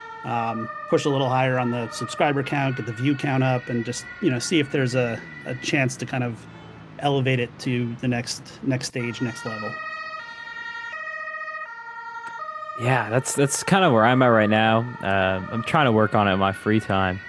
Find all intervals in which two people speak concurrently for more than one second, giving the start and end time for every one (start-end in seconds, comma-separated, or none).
none